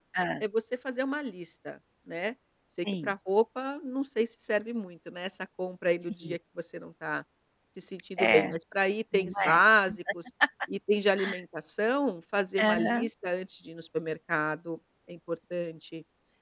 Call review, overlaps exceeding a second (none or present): none